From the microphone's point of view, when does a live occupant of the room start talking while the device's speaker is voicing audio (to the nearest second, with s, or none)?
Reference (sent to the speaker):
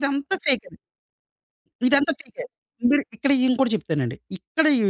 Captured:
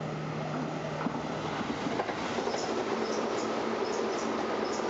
none